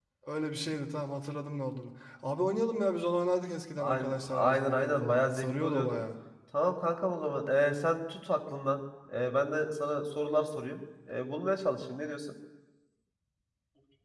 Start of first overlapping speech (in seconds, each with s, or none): 3.8 s